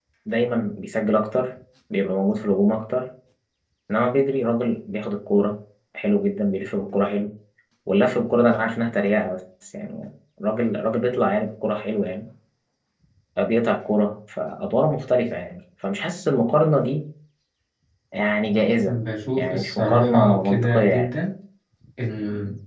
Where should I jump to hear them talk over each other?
19.4 s

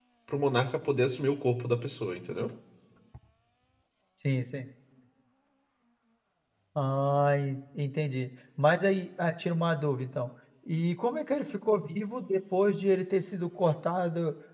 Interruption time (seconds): none

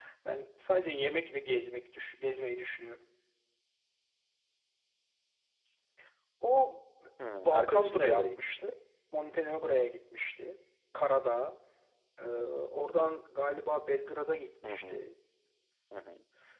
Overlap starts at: 7.2 s

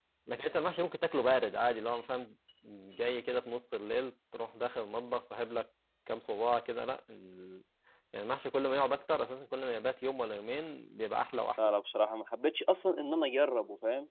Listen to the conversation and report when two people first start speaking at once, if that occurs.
none

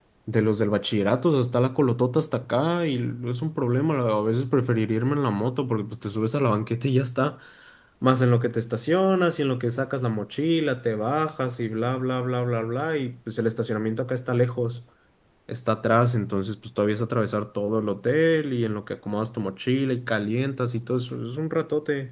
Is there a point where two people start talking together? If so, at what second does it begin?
none

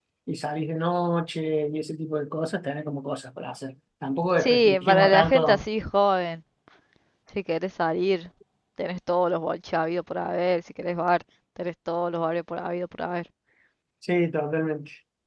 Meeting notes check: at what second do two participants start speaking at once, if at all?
4.4 s

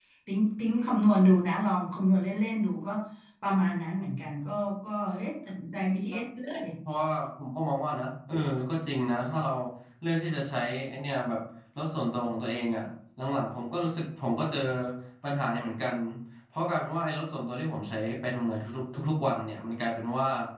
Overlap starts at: none

